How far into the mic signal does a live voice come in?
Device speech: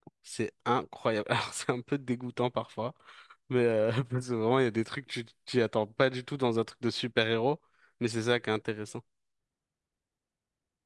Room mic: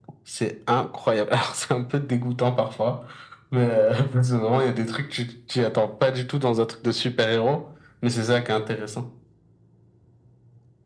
none

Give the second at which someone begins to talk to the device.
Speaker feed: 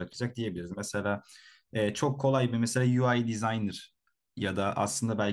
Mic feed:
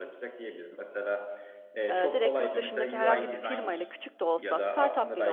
1.9 s

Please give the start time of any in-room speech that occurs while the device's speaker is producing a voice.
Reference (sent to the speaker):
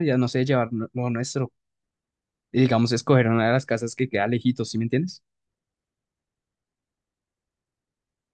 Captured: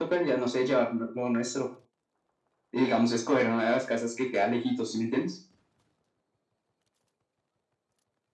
none

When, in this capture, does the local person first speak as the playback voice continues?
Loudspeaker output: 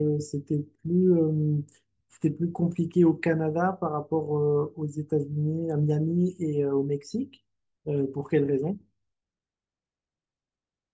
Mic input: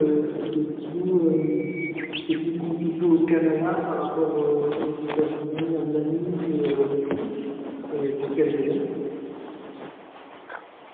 none

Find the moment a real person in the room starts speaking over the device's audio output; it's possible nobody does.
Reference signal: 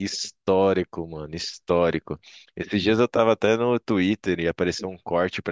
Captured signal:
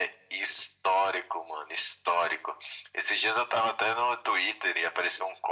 none

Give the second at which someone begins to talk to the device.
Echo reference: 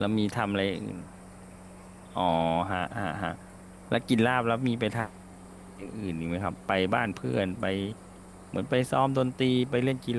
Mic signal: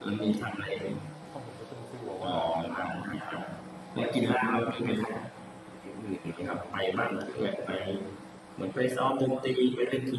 0.5 s

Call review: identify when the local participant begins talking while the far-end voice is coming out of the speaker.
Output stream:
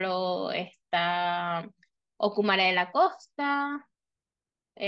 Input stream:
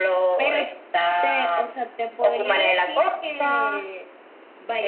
0.3 s

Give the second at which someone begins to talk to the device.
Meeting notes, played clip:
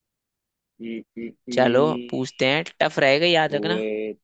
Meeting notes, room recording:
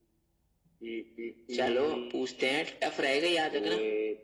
none

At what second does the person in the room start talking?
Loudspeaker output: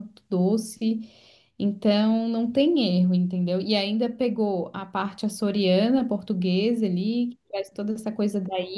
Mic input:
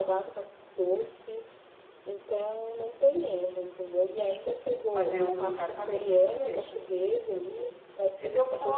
4.9 s

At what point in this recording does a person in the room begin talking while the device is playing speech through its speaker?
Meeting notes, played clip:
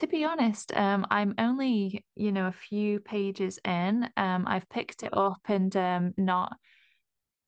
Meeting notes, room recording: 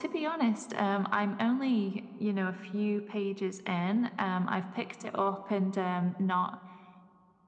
none

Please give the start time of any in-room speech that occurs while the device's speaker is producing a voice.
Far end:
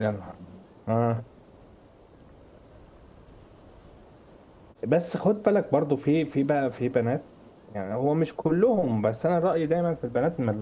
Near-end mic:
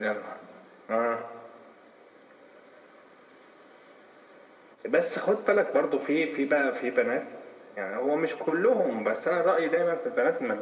none

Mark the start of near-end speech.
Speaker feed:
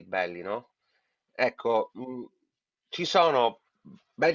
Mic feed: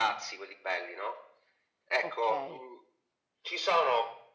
2.0 s

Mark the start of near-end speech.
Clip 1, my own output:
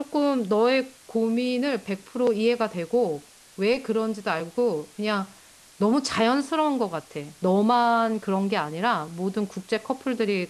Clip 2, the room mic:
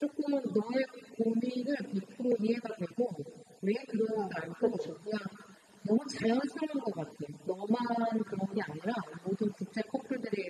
4.2 s

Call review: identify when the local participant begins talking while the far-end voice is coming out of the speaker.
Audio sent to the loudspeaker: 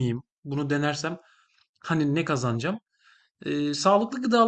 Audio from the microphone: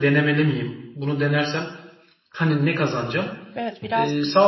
3.5 s

